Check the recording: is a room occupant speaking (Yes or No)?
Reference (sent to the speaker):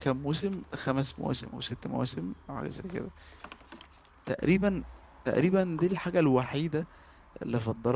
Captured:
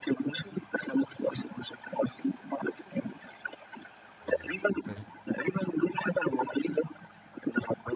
Yes